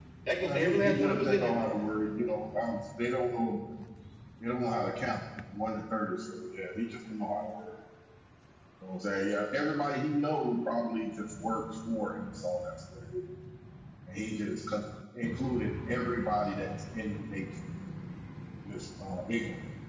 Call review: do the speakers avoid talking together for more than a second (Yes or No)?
No